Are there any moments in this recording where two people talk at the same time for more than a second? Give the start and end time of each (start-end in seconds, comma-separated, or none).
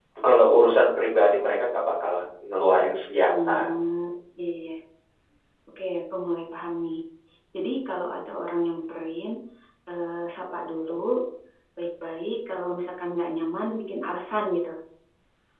none